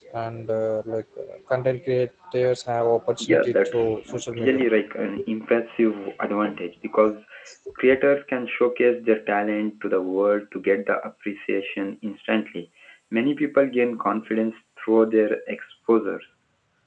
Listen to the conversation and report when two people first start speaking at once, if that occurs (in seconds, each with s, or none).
3.2 s